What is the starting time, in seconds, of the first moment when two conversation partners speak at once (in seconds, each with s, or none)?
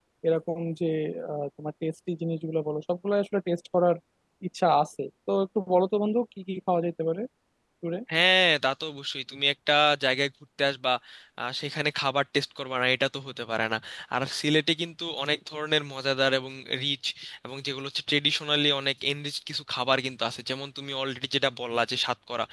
none